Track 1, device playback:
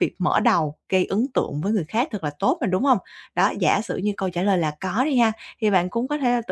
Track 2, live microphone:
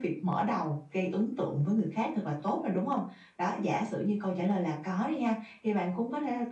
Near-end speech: none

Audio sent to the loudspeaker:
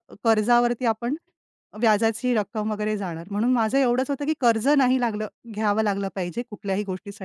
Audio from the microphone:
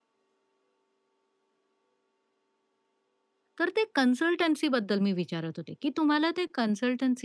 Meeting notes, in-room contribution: present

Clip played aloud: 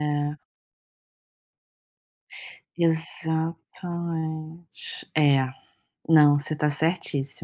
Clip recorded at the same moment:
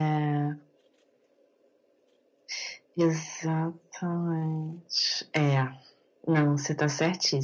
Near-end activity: none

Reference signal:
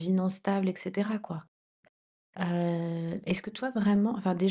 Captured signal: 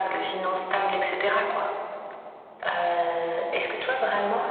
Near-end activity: none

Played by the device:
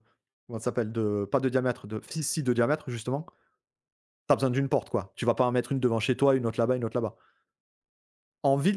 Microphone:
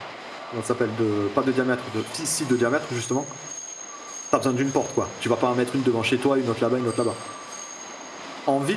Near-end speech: none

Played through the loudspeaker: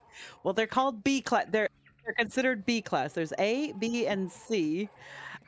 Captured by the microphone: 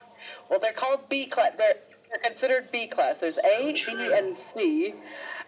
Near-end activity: present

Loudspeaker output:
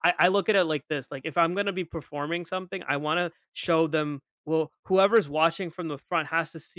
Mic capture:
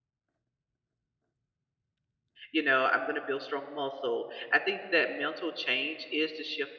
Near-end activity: present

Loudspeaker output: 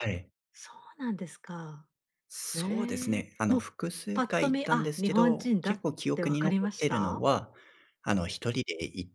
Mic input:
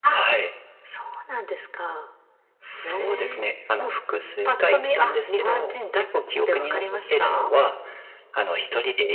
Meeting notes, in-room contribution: none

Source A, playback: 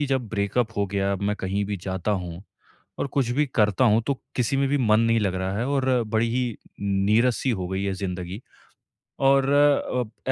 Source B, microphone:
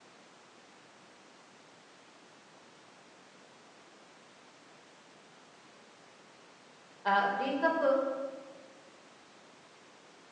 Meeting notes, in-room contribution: present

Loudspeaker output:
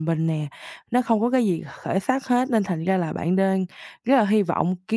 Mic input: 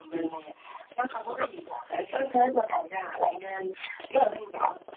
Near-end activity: none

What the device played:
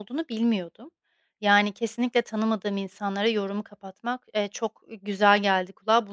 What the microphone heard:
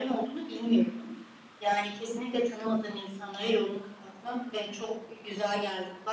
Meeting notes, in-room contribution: none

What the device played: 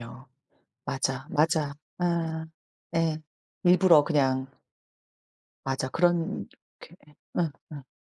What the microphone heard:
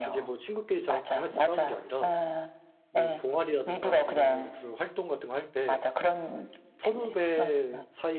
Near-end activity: present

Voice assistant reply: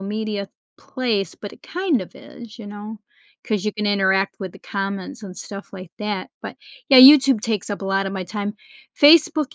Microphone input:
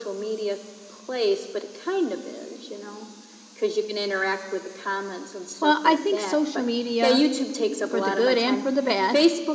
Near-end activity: present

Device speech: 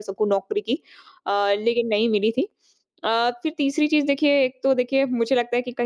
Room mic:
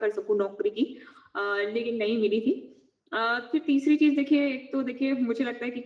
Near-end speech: none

